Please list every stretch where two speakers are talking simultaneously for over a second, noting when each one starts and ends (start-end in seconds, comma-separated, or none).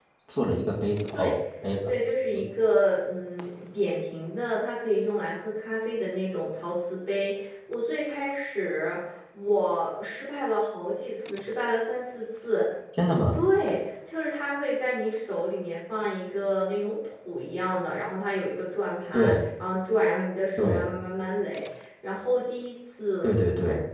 none